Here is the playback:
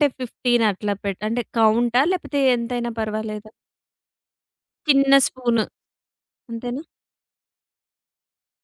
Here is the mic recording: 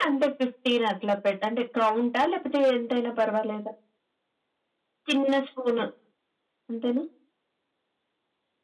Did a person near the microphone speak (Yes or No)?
No